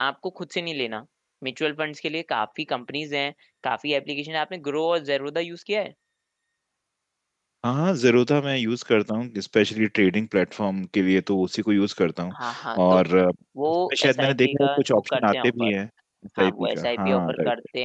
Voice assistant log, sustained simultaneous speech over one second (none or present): present